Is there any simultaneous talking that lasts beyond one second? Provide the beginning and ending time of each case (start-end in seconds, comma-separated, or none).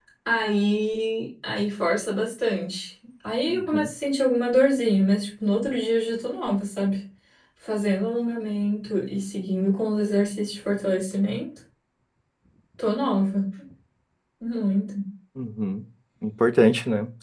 none